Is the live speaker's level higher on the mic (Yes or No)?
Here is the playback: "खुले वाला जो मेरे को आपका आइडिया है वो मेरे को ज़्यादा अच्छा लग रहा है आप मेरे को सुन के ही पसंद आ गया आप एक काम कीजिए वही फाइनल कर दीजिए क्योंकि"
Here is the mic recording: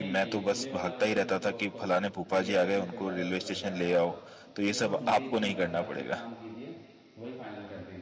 Yes